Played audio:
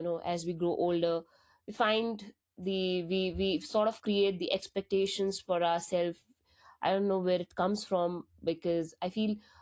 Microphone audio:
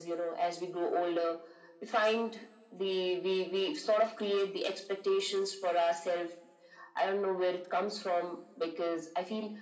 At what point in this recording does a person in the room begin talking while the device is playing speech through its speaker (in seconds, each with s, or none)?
none